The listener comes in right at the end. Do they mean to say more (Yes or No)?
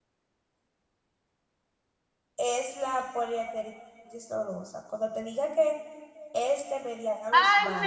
Yes